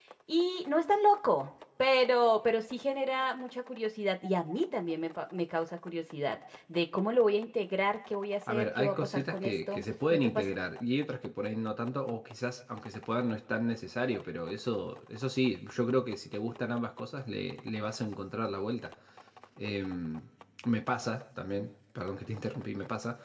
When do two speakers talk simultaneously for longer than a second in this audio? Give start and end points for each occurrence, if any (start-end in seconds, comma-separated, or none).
8.5-10.5